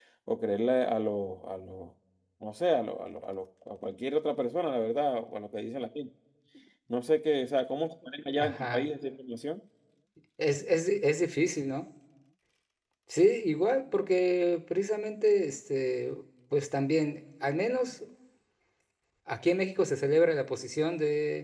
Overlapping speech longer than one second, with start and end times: none

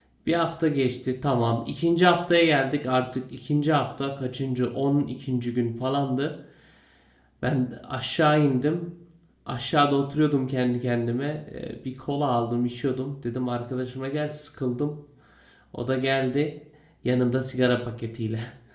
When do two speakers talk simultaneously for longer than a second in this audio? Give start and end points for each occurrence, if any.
none

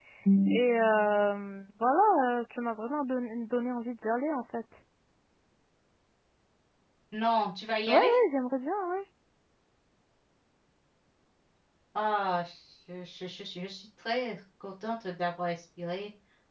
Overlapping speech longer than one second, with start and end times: none

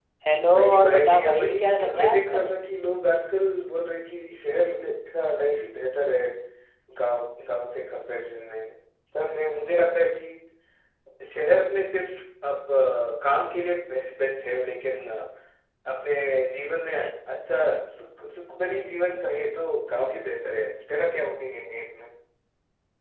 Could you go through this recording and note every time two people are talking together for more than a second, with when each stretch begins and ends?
0.5-2.5

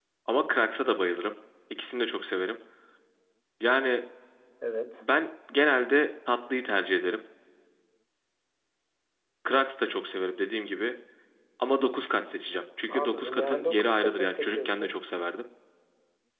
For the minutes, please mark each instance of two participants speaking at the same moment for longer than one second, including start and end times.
12.9-14.9

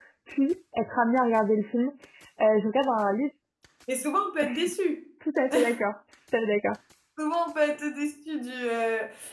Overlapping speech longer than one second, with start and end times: none

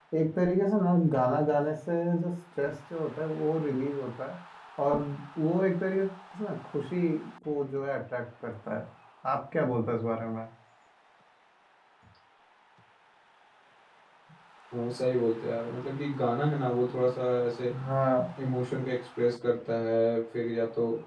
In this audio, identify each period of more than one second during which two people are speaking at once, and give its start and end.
none

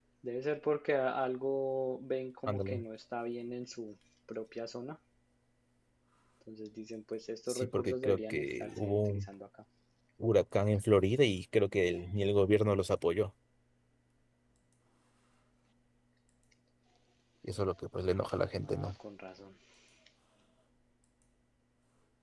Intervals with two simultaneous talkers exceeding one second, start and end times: 7.5-9.2

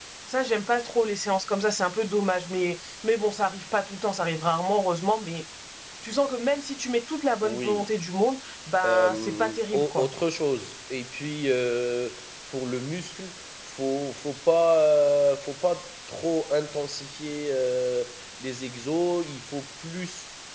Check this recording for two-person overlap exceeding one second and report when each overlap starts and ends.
8.8-10.1

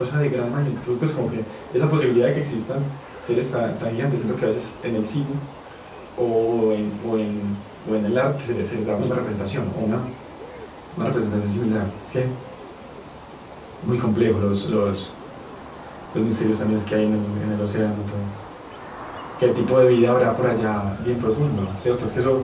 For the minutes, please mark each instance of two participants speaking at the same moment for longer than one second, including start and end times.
none

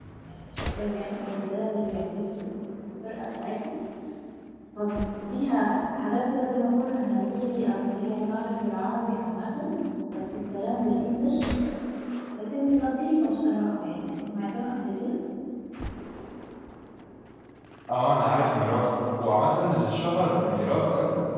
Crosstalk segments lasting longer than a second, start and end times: none

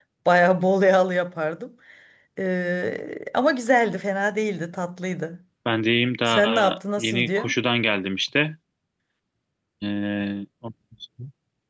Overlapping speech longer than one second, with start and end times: 6.3-7.5

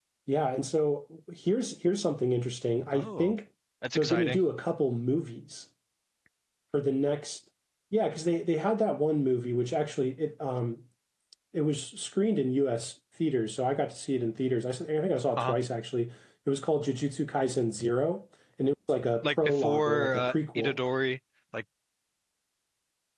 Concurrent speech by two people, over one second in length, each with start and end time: 19.2-20.8

